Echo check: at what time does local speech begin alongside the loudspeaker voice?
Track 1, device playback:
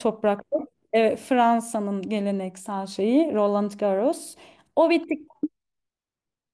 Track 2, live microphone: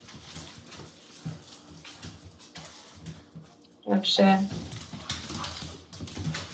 3.9 s

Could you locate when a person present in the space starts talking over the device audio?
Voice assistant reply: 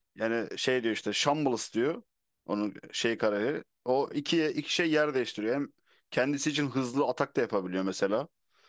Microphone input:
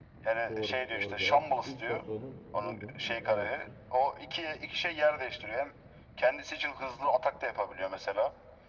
0.5 s

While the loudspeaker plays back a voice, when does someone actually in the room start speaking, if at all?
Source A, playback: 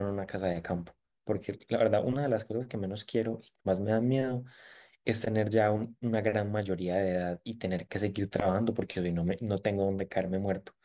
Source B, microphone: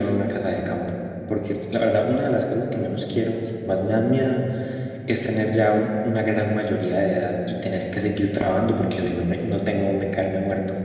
none

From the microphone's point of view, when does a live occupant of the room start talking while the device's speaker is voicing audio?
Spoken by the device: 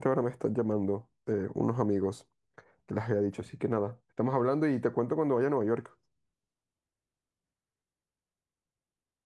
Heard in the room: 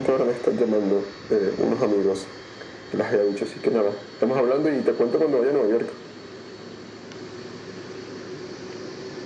none

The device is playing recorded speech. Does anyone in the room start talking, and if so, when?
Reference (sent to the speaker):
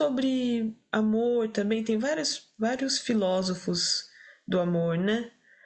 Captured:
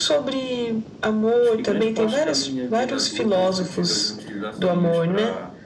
1.4 s

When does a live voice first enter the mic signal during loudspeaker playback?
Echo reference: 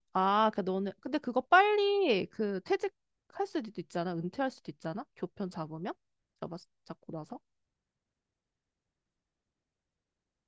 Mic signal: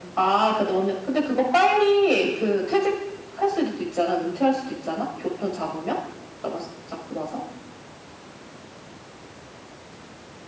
none

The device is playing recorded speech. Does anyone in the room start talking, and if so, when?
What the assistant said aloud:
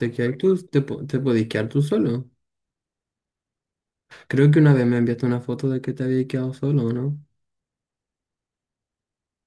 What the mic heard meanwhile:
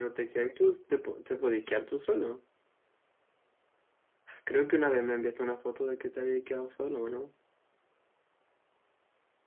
none

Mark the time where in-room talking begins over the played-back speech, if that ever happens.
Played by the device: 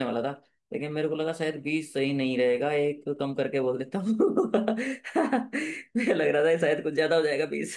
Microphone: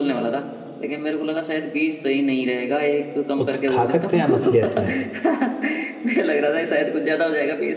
3.4 s

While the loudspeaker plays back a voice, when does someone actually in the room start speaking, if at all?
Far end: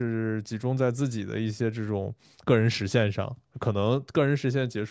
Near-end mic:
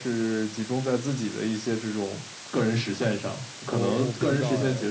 3.7 s

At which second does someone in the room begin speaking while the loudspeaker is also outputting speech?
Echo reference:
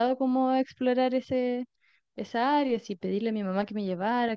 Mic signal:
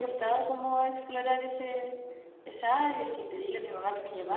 none

